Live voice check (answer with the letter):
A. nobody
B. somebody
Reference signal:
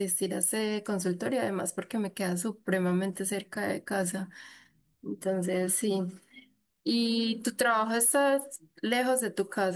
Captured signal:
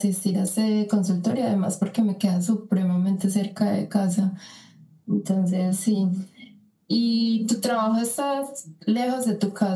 A